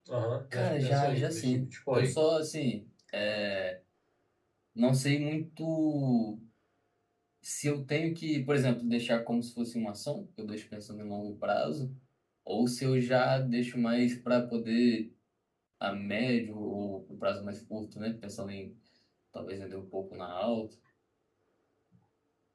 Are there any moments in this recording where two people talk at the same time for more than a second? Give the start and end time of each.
0.5-2.1

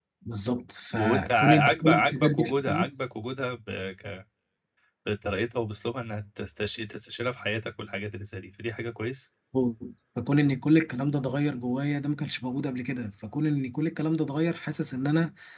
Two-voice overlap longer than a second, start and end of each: 0.9-2.9

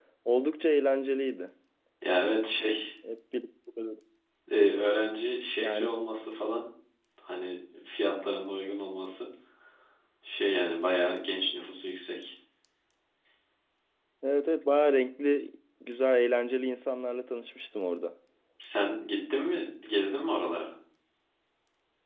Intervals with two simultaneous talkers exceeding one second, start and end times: none

